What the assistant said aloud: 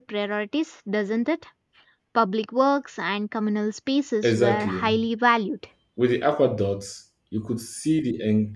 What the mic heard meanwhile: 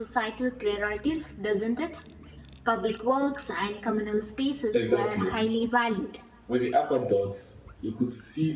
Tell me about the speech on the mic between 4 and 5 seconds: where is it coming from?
echo only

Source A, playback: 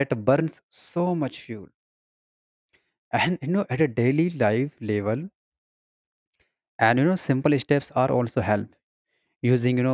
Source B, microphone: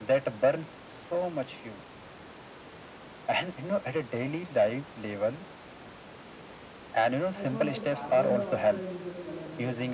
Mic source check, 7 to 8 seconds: both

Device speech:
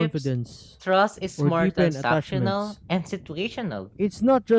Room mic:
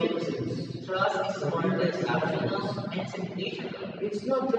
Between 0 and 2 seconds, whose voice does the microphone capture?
echo only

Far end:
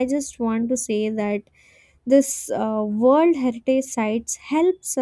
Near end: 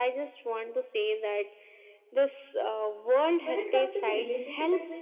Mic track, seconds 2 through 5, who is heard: both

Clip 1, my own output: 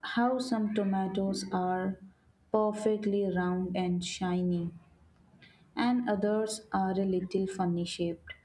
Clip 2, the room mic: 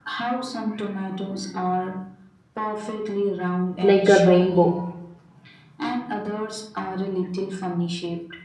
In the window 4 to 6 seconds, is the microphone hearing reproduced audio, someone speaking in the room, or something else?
both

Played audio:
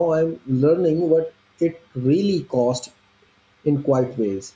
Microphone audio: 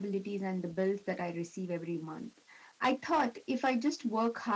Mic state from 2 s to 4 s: user only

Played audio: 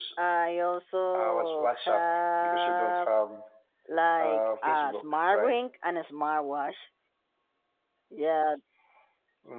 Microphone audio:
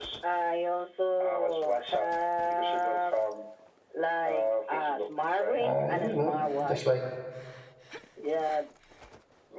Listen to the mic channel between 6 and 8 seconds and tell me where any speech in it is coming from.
both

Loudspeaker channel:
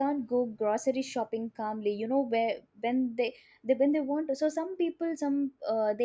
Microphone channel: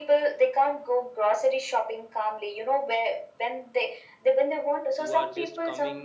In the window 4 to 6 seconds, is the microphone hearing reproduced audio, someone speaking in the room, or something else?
both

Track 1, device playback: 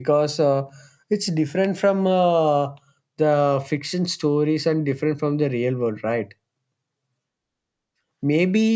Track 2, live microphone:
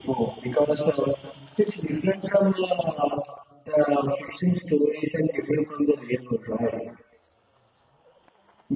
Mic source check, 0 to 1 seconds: echo only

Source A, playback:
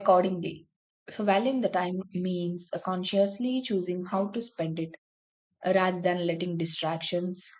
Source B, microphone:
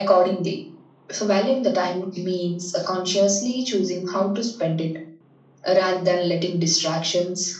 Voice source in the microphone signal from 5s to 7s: echo only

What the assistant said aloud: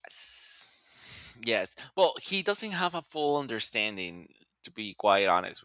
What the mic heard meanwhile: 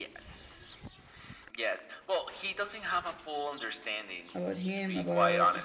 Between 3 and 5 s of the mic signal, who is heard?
both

